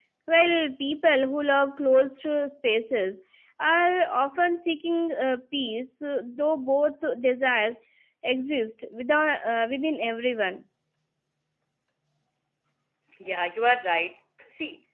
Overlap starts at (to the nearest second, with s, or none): none